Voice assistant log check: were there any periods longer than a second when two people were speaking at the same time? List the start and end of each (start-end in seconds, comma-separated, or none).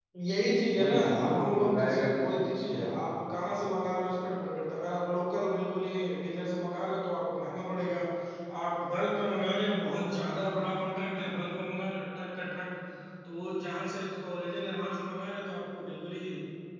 0.8-2.8